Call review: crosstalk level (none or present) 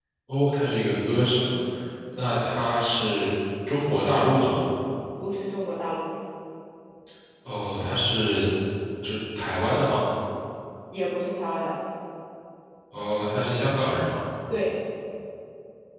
none